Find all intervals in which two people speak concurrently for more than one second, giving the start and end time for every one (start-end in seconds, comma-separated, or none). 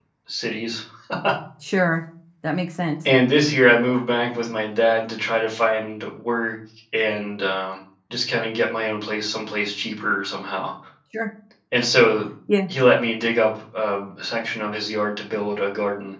none